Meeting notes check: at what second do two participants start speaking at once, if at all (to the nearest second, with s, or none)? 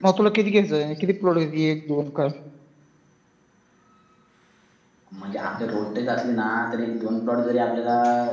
none